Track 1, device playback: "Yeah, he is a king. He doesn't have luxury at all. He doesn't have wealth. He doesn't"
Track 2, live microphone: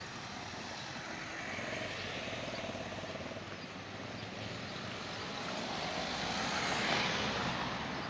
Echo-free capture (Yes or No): Yes